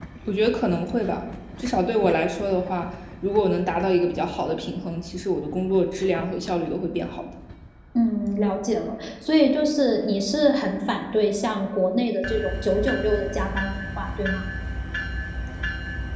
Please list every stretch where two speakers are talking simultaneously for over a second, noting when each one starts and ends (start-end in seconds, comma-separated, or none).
none